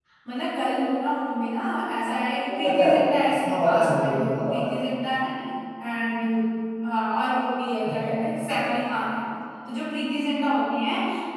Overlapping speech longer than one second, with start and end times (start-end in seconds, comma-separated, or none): 3.3-4.7